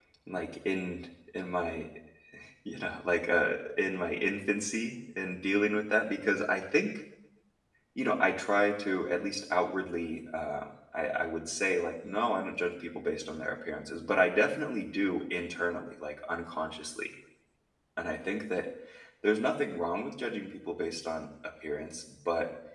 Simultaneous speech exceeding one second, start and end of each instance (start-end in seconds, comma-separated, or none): none